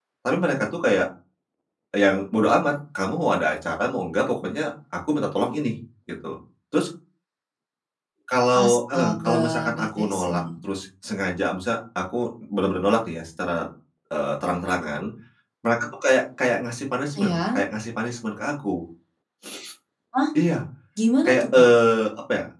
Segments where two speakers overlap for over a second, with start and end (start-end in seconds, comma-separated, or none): 8.5-10.5